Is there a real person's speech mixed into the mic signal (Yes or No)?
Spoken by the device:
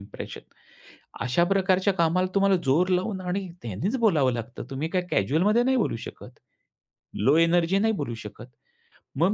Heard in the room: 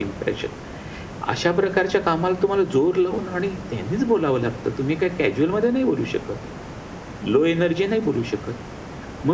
No